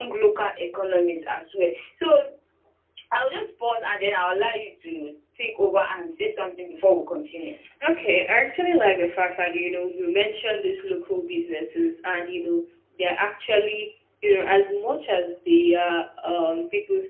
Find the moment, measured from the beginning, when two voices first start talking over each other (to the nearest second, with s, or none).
none